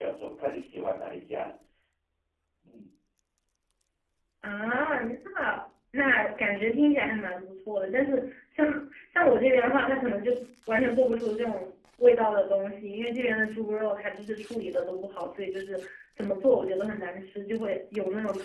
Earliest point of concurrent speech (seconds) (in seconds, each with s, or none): none